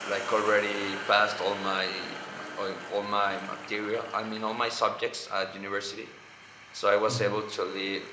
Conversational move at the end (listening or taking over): listening